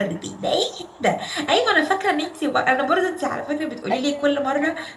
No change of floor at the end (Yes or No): Yes